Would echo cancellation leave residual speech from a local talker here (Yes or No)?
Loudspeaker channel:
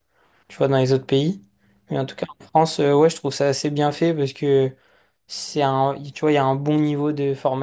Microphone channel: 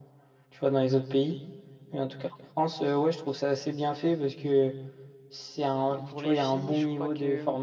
Yes